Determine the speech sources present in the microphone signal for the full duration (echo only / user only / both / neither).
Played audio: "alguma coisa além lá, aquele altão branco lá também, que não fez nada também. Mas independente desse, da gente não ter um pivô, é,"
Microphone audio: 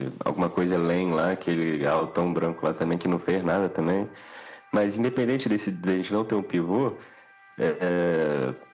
echo only